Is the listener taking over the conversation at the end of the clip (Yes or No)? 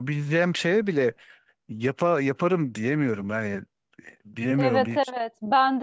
Yes